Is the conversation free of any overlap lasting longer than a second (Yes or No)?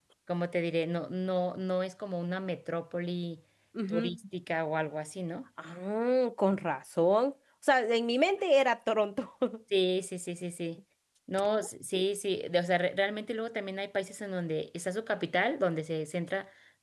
Yes